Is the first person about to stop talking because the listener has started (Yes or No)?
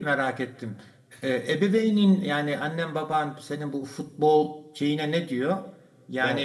No